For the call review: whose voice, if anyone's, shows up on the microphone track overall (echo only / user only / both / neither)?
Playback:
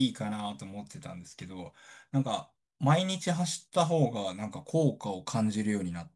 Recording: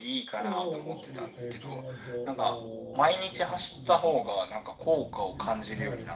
both